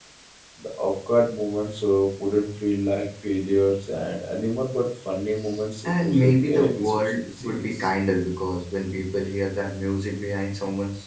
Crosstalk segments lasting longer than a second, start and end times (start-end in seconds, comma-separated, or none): 5.8-7.9